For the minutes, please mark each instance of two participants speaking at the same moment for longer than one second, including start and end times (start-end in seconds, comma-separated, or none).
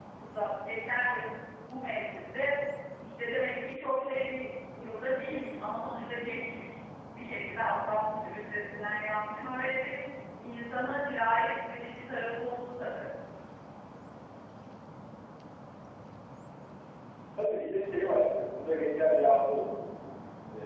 none